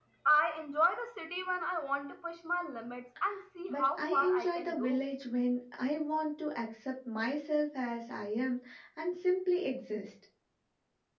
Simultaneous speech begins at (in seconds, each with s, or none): 3.7 s